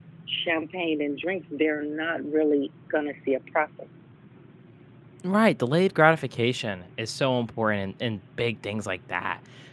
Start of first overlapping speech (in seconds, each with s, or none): none